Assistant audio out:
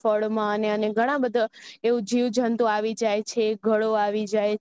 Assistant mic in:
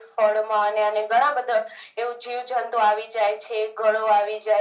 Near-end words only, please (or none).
none